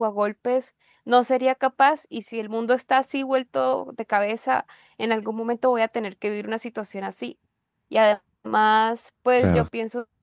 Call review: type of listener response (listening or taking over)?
listening